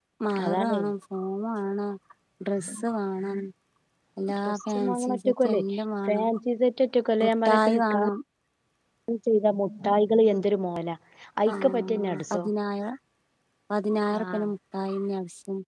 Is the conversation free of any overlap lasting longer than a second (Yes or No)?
No